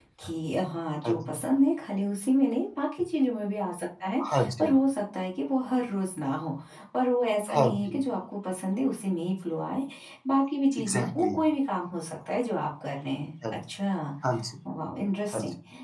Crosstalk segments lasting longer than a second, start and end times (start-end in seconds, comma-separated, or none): none